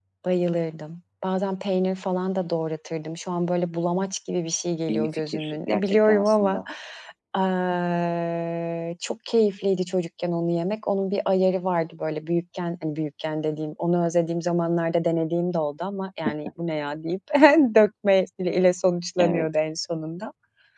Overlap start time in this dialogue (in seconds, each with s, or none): 4.9 s